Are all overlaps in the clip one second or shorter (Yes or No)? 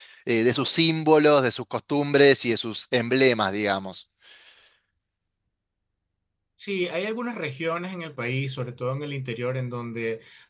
Yes